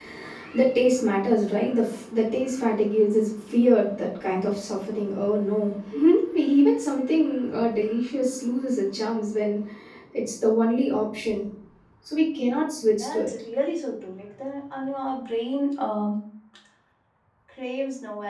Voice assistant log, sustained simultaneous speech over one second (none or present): none